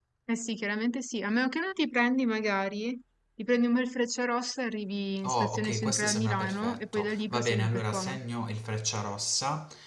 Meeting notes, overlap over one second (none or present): present